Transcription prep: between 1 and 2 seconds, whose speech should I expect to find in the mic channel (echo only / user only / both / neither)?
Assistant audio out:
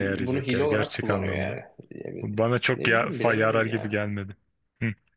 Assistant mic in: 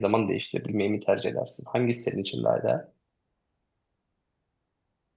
user only